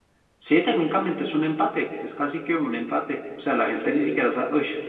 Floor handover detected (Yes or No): No